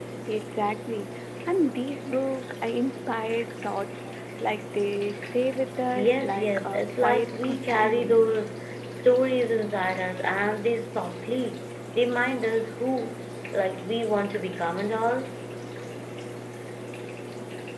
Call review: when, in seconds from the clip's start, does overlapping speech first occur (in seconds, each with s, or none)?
6.0 s